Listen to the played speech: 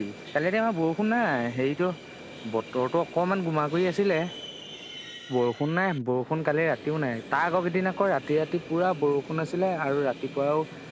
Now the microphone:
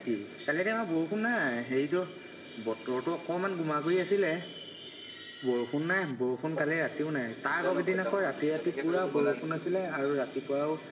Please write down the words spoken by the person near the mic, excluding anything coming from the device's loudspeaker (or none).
অ', হেৰি শুনাইছিলে ন, ক'ৰবাত যাম বুলি কৈছিলে, এনেকে ভাবিলোঁ গ'লা নেকি।